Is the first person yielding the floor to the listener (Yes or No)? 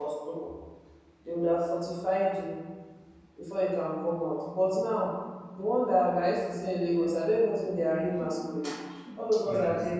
No